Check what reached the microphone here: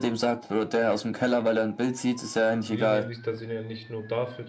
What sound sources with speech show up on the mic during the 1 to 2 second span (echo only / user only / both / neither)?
echo only